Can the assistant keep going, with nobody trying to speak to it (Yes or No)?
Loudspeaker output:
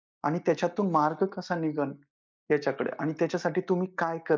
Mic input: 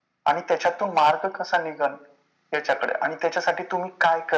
Yes